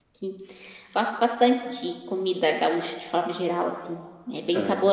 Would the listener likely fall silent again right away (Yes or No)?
Yes